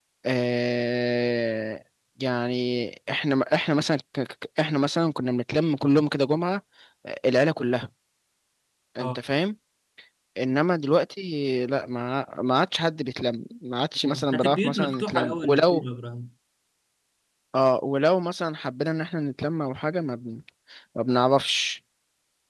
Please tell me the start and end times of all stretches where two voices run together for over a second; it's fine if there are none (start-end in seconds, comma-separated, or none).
14.0-15.8